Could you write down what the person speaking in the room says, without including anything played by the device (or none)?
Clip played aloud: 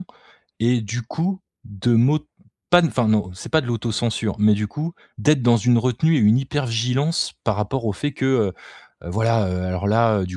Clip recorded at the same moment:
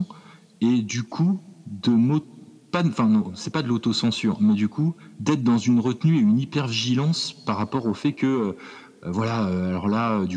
none